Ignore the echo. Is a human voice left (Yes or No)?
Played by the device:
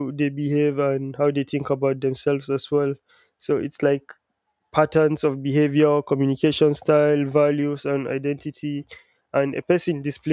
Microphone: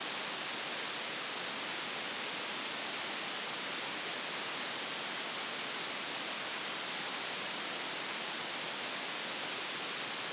No